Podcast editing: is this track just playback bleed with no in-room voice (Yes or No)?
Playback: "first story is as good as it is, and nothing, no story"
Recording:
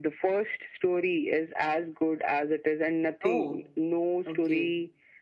No